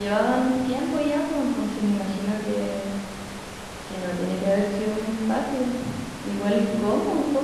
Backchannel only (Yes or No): Yes